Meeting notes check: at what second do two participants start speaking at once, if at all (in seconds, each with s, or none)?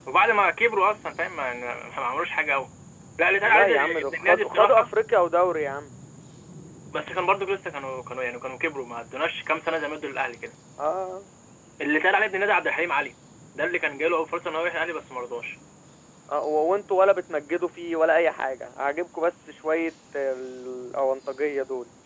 3.4 s